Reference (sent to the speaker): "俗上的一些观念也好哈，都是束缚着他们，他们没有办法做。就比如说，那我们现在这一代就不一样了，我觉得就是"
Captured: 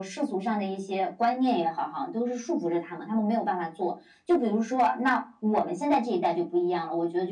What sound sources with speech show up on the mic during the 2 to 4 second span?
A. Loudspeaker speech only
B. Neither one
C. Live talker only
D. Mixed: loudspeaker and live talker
A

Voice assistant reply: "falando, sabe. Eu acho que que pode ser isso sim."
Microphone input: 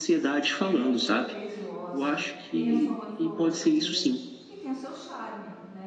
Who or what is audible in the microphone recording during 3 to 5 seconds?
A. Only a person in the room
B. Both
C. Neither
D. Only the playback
B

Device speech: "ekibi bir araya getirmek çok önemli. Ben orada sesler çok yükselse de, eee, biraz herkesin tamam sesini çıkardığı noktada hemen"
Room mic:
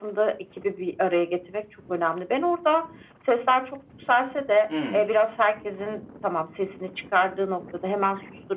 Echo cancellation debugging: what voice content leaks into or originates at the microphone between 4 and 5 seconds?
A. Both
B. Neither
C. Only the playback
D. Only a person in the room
A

